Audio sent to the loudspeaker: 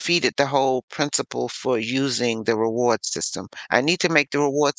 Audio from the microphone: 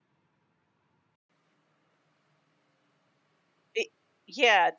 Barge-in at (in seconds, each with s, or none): 3.7 s